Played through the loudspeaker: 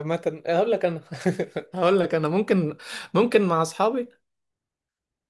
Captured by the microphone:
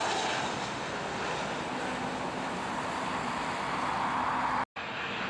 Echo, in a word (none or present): none